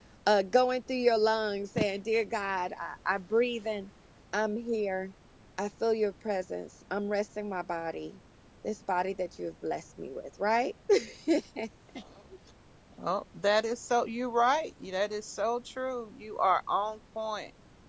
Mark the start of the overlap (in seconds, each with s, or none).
none